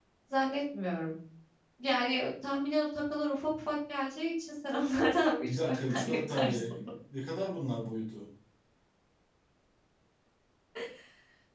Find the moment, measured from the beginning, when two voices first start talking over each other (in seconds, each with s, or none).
5.4 s